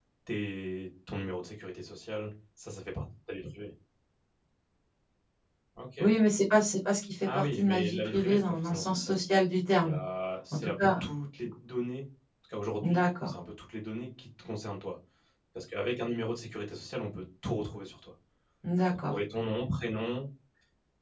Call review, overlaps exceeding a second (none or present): present